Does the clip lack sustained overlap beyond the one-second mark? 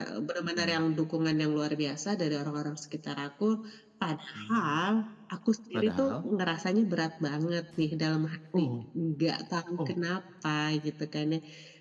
Yes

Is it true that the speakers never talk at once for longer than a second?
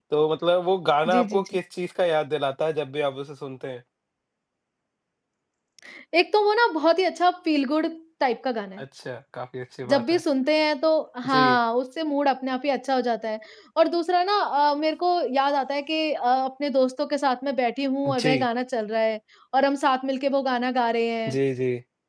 Yes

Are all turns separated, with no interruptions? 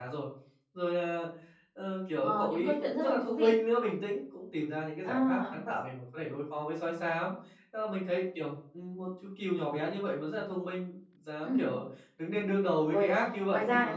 No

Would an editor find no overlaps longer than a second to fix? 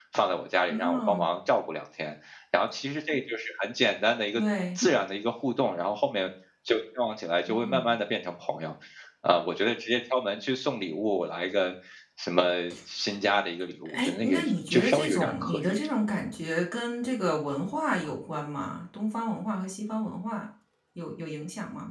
No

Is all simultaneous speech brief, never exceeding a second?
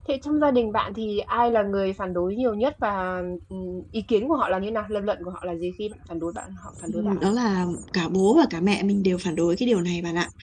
Yes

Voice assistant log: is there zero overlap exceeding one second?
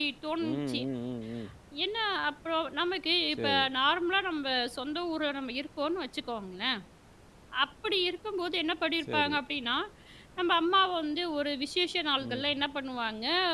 Yes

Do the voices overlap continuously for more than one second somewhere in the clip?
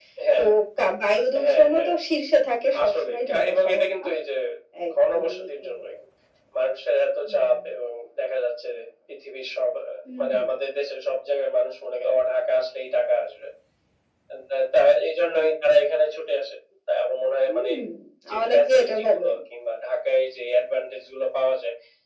Yes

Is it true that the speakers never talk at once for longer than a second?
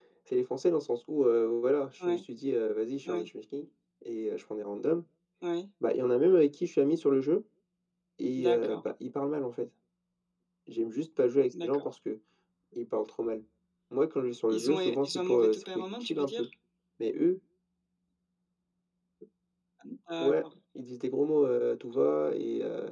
No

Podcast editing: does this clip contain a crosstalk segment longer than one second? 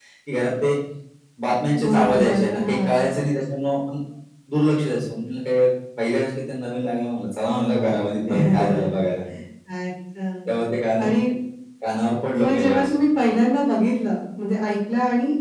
Yes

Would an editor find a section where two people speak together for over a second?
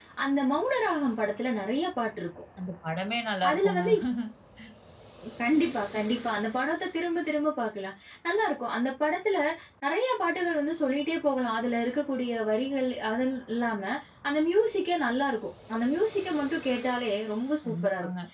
No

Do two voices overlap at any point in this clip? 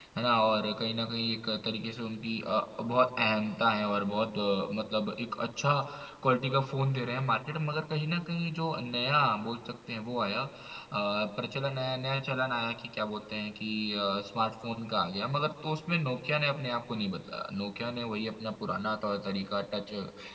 No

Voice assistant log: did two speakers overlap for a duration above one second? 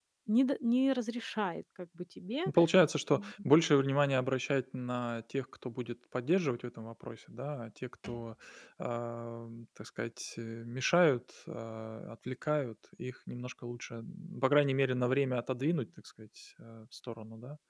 No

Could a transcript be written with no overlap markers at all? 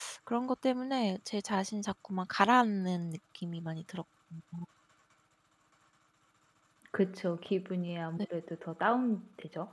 Yes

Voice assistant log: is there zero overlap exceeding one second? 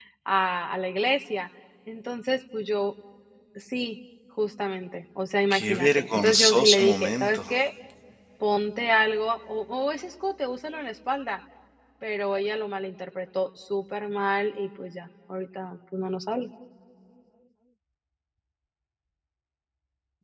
No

